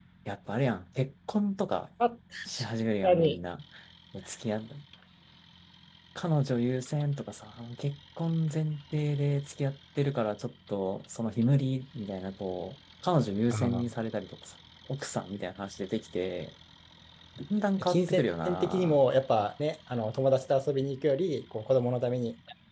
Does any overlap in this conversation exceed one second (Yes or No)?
Yes